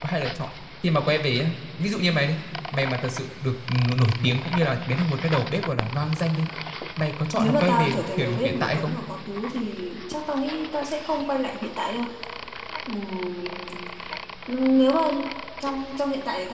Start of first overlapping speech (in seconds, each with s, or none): 7.4 s